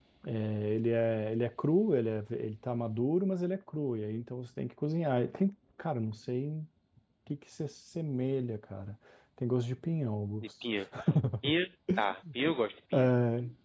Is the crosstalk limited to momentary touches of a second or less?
Yes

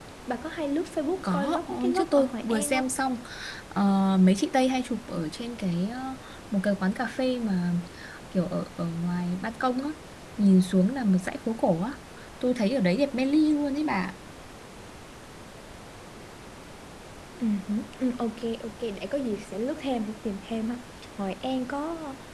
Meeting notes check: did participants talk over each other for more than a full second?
Yes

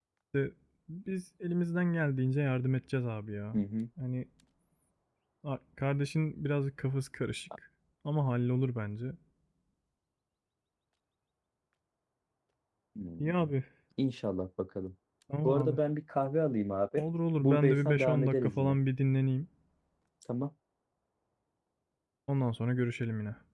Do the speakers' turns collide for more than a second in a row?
Yes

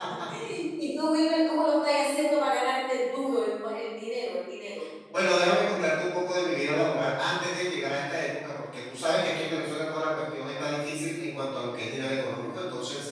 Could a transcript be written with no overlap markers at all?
Yes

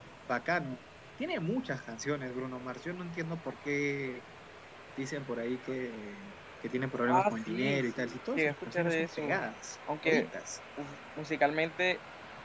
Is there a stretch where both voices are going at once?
Yes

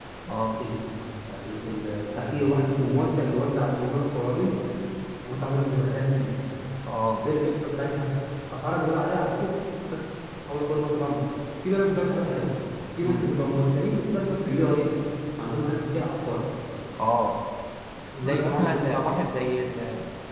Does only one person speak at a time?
No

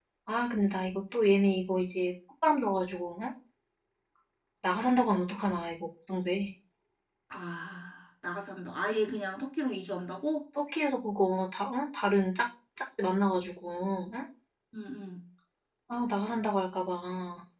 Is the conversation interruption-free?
Yes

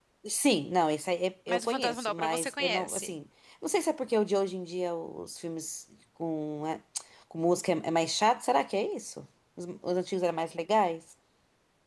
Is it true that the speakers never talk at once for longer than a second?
No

